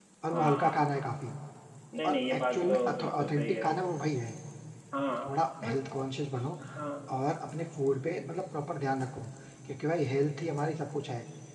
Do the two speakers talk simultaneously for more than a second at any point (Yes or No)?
Yes